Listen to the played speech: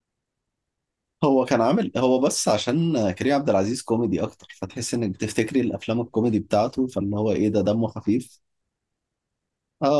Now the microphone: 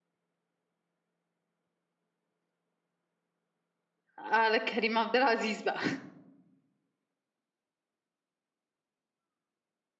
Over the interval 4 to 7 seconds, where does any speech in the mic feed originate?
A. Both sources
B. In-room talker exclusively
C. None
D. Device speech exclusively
B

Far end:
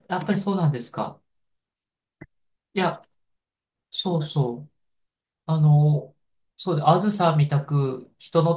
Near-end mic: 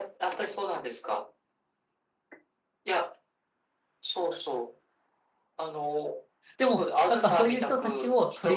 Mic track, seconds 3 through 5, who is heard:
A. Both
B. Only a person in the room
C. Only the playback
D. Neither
C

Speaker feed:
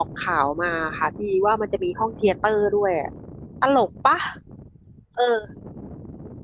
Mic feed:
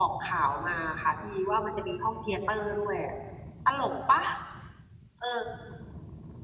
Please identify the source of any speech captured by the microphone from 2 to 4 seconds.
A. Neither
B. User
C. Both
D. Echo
D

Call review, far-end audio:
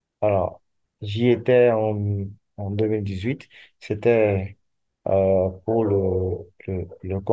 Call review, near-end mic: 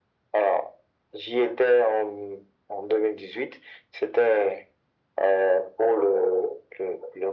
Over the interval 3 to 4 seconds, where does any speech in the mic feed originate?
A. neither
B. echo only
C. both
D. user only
B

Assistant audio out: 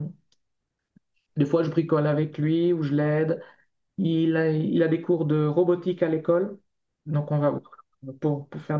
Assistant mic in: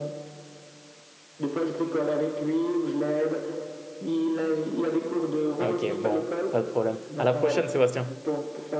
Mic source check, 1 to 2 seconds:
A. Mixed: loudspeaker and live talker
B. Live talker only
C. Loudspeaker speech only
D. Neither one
C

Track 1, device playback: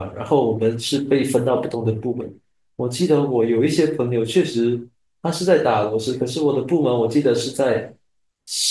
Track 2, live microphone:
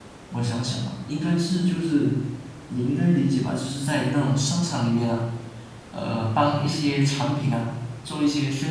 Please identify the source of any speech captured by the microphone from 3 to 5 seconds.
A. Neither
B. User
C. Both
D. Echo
B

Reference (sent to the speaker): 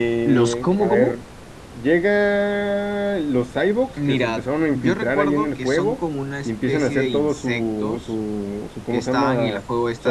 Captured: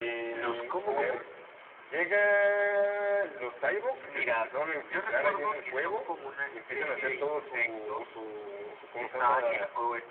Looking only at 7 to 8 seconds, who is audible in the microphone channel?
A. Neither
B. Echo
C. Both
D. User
B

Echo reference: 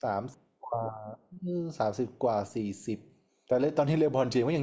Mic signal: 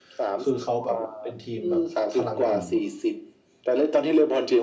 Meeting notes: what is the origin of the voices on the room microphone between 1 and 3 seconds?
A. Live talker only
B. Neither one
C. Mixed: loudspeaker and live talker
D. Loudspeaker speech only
C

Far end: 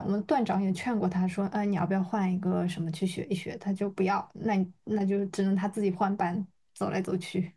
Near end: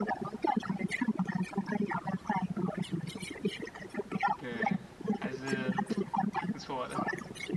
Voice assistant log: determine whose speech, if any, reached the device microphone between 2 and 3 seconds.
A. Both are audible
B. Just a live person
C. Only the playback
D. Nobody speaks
C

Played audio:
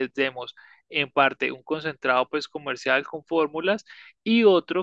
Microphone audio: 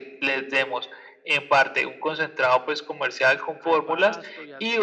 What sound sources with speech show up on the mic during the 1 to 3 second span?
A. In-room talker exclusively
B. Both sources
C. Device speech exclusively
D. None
C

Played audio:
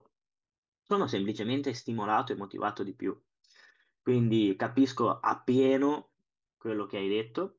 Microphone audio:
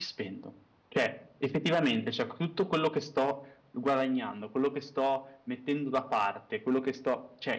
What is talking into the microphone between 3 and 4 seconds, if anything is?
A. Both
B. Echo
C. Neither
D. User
D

